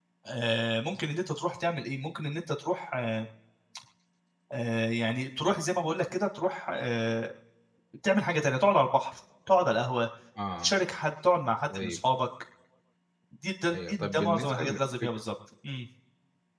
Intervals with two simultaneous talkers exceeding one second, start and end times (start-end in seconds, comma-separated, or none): 13.7-15.1